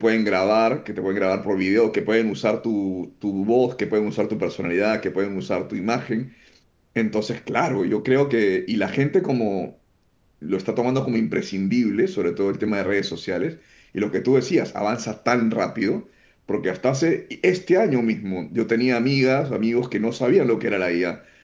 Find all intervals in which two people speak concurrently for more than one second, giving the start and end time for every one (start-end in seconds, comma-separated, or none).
none